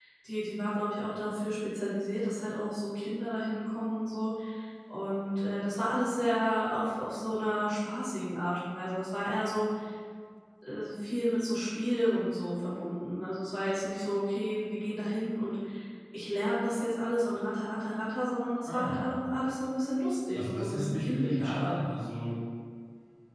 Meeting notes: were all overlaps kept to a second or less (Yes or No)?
No